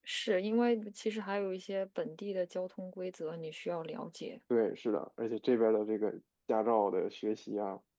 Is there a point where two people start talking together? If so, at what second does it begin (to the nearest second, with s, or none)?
none